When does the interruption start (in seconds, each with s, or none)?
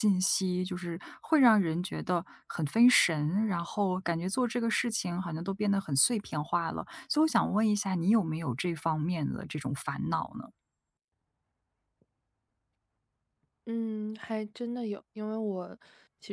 none